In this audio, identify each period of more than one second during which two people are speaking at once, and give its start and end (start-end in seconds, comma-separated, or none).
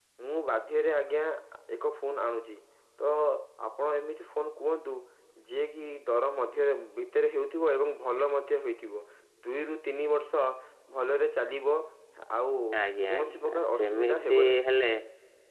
13.1-14.7